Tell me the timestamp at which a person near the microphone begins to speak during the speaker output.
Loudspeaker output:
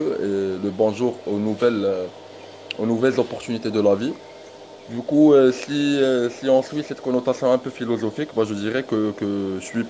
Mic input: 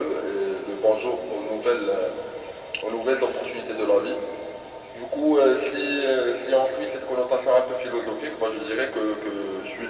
none

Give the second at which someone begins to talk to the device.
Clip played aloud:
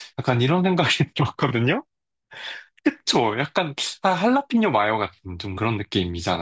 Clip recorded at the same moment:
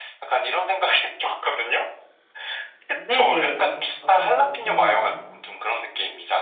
3 s

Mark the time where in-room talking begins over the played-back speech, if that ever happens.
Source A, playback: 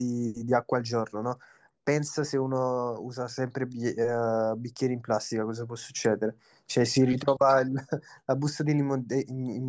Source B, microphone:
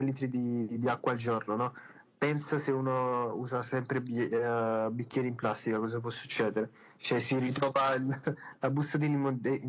none

